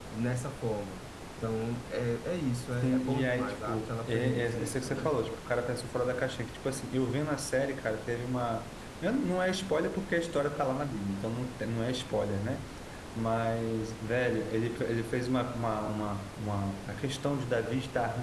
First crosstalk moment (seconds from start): 3 s

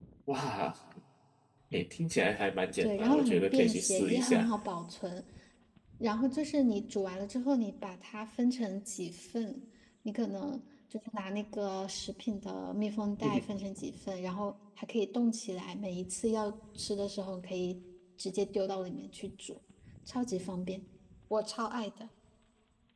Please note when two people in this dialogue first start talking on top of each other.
3 s

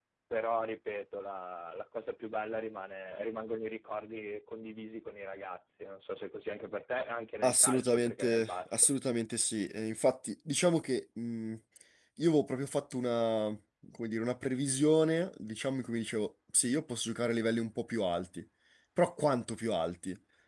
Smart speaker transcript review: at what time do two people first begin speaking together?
7 s

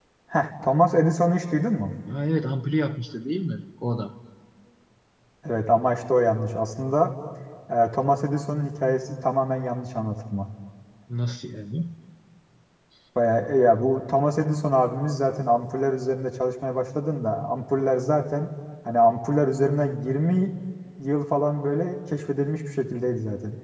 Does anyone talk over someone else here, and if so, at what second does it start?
none

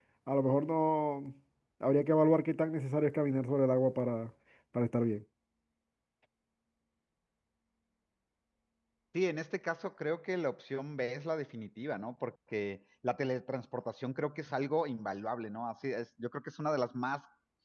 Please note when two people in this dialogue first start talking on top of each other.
none

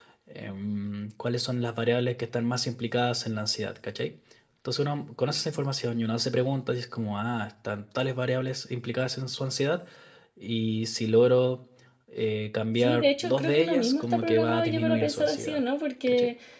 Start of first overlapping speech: 13 s

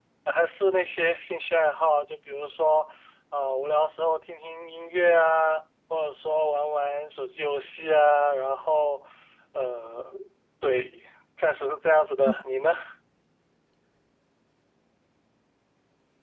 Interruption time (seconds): none

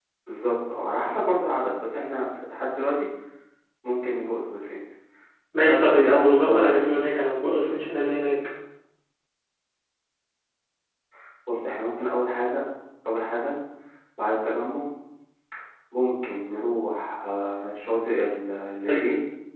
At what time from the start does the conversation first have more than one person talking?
6 s

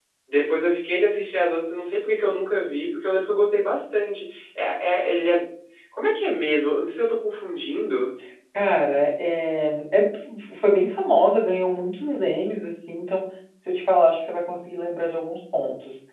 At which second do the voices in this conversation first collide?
none

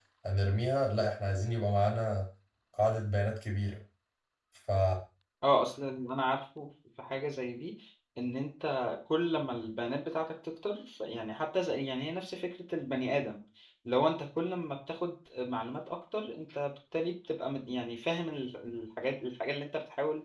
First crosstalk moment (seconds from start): none

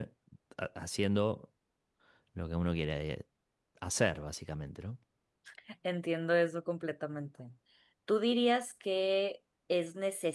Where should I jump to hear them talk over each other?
none

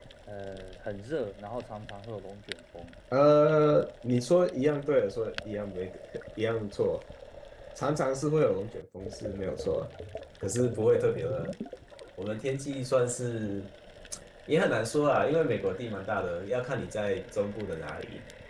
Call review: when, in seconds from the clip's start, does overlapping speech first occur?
none

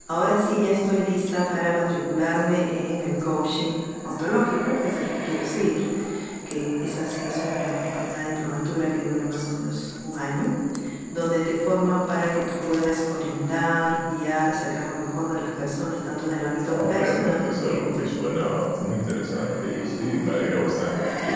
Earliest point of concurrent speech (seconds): 17 s

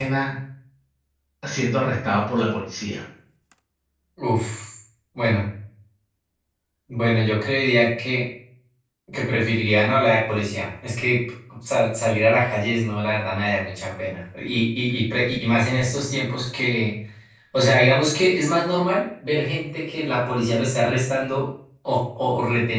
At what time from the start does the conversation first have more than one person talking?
none

